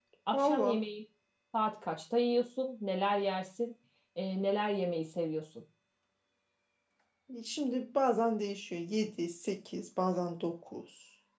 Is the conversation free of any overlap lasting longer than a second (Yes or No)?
Yes